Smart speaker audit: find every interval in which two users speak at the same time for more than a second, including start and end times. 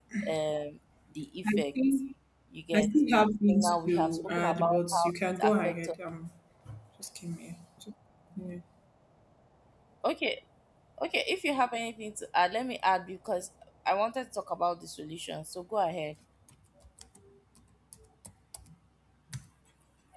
3.5-6.0

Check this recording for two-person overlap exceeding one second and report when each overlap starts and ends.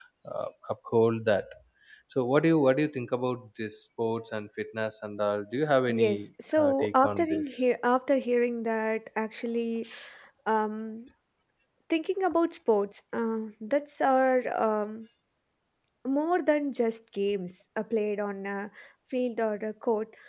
5.9-7.4

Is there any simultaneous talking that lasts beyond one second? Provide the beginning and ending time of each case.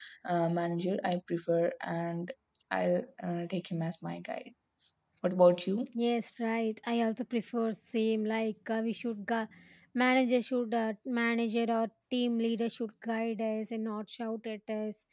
none

